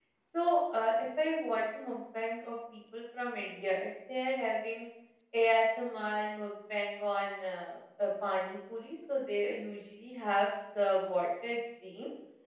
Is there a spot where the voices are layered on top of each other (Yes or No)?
No